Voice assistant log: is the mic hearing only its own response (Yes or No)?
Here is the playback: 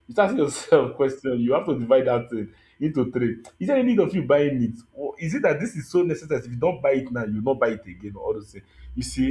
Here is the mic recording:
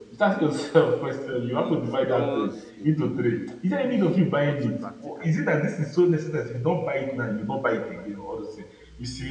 No